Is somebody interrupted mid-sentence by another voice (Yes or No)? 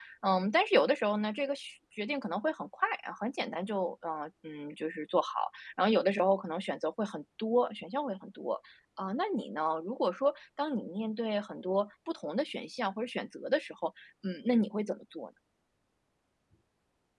No